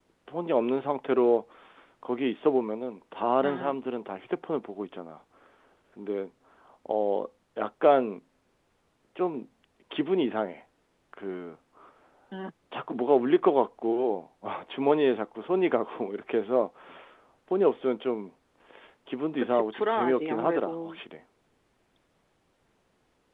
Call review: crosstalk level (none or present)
present